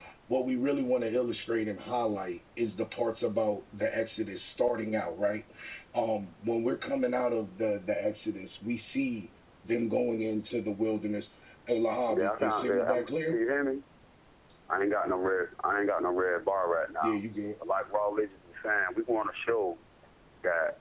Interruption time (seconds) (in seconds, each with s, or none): 12.1 s